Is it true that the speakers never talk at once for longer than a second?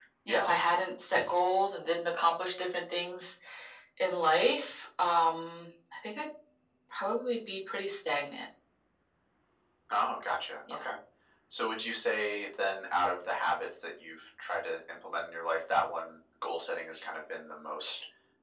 Yes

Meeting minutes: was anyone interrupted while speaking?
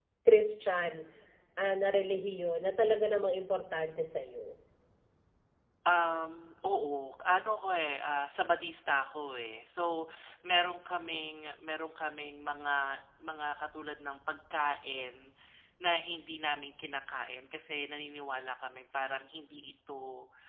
No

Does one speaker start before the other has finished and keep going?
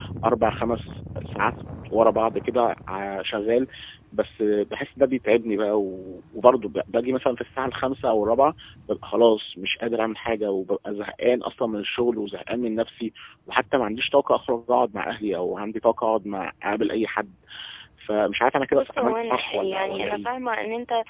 Yes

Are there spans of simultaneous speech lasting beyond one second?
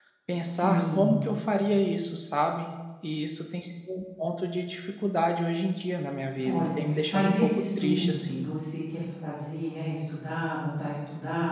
Yes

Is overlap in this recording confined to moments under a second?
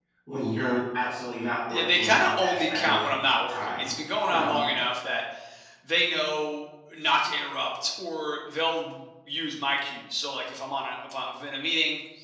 No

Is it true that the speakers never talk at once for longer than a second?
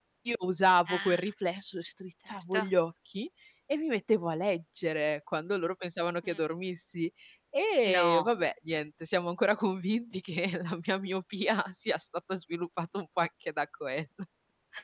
Yes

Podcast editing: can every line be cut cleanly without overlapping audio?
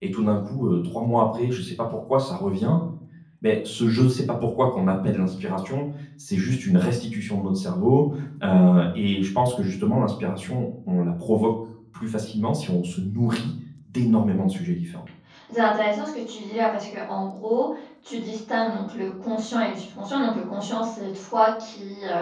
Yes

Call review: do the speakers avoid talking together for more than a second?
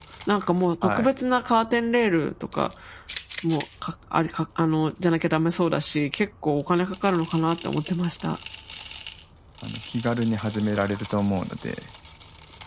Yes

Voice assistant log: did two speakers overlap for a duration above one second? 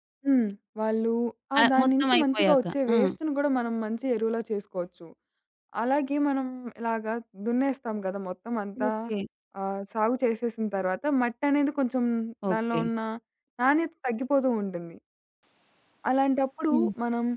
Yes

